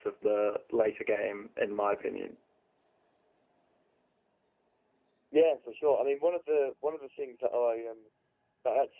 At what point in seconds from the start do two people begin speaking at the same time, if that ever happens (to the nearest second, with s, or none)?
none